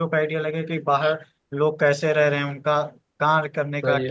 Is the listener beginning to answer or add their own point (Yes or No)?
No